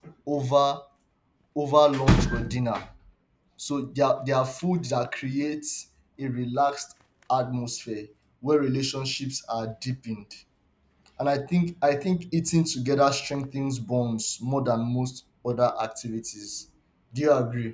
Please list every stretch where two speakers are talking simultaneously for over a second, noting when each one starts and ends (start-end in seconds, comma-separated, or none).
none